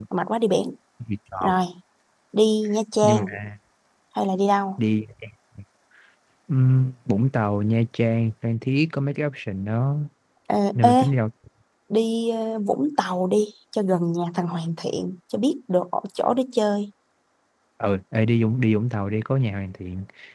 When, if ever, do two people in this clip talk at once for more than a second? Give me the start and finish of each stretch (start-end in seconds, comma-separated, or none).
none